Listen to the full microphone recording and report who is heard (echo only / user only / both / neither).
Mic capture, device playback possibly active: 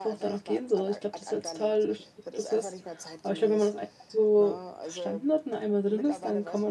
both